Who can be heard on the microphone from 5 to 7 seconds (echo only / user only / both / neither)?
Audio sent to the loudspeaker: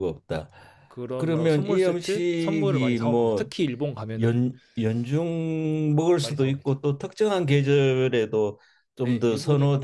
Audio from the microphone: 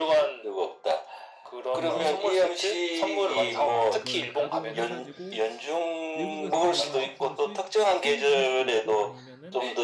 both